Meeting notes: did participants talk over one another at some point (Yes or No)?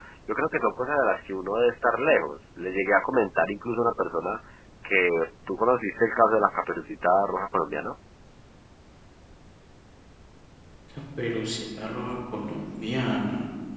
No